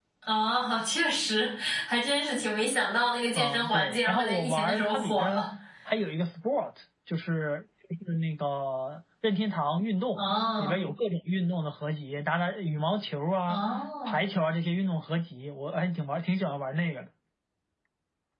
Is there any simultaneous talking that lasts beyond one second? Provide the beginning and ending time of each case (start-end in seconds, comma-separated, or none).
3.4-5.4